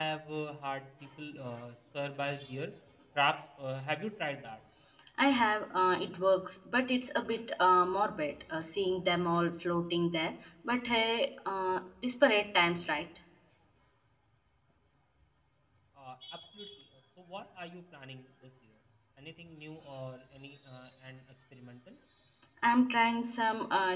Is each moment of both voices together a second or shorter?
Yes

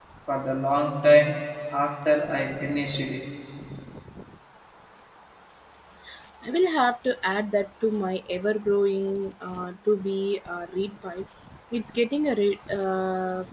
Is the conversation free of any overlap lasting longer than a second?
Yes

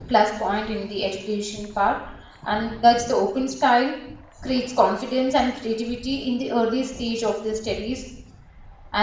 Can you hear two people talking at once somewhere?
No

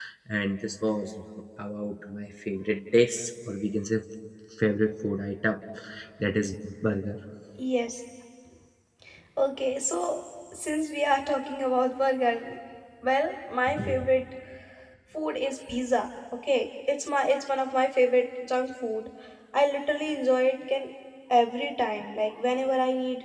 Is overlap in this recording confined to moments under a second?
Yes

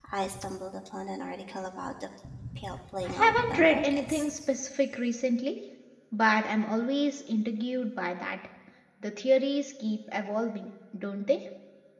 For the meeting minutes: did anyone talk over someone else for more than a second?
Yes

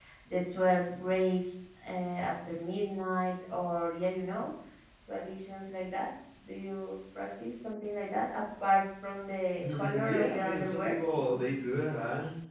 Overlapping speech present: Yes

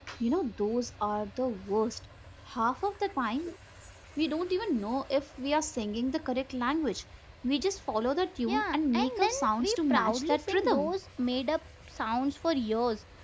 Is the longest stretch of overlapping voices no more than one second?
No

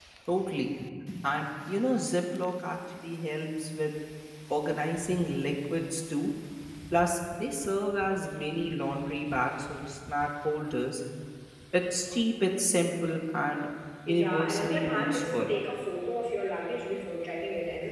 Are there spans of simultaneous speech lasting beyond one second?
Yes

